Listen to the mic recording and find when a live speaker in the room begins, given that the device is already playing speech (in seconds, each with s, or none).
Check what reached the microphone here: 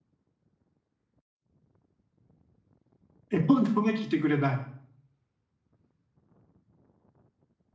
3.3 s